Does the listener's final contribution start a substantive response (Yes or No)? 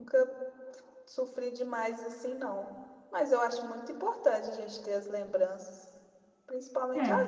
No